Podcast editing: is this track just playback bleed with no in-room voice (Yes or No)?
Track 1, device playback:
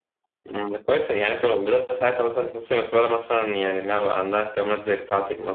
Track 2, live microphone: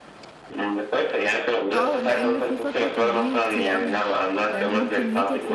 No